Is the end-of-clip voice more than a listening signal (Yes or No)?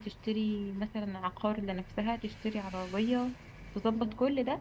No